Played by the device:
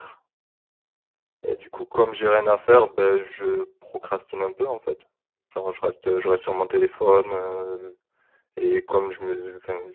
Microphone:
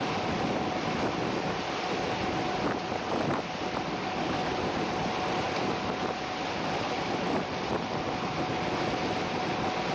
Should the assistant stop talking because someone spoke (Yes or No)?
No